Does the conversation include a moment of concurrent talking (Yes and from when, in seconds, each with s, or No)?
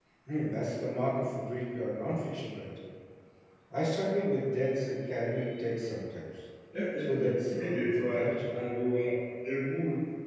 Yes, from 7.0 s